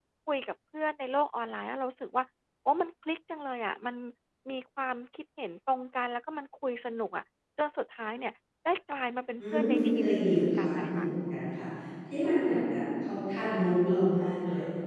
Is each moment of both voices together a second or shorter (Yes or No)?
No